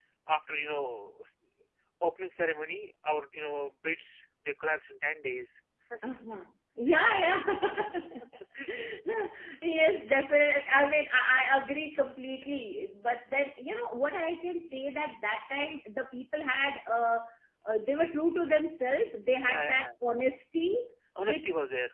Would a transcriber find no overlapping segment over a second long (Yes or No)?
Yes